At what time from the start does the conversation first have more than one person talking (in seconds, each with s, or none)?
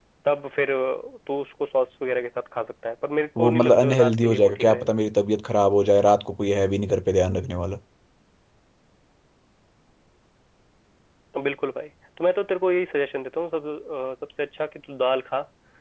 3.4 s